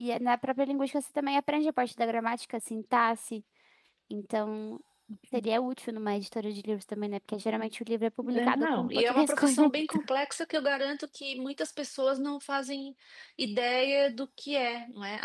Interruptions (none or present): present